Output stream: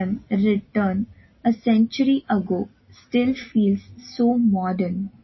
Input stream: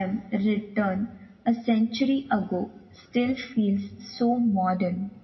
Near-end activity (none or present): none